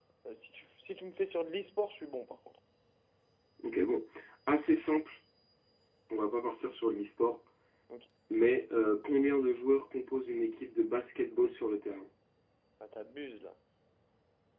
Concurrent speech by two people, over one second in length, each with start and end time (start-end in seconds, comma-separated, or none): none